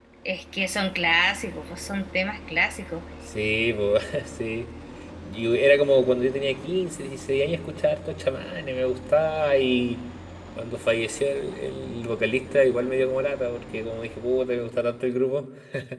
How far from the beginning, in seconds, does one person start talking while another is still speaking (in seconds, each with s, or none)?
none